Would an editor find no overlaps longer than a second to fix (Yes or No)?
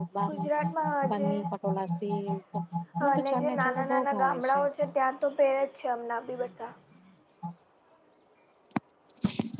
No